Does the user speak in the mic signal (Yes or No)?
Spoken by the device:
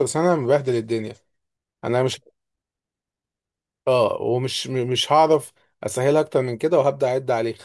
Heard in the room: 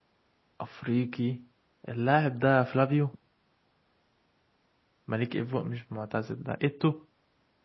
Yes